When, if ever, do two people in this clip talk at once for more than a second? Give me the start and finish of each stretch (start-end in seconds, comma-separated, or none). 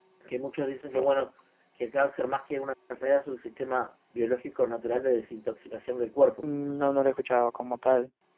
none